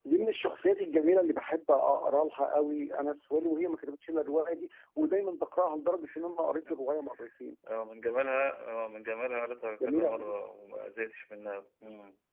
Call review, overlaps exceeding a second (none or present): none